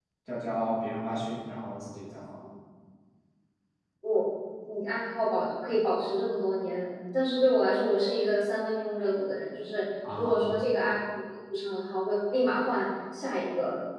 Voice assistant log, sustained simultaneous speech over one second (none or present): none